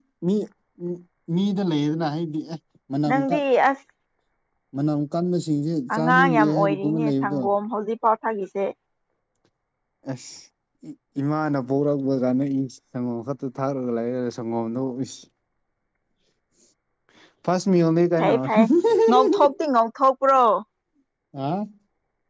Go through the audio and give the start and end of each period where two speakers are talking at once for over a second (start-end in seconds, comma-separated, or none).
6.0-7.4